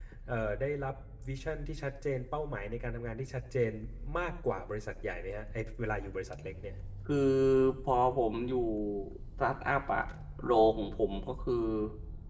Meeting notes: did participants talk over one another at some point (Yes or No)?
No